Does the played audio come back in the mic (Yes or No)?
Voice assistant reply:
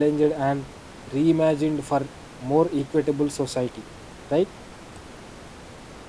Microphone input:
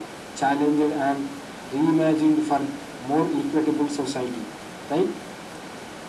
Yes